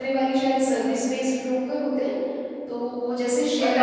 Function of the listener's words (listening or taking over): taking over